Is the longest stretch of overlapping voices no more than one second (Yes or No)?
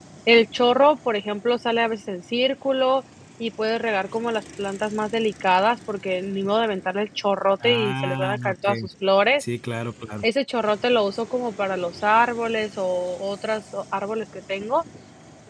No